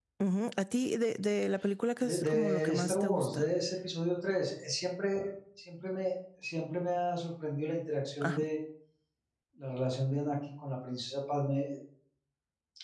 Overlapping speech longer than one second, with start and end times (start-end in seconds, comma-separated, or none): 2.0-3.5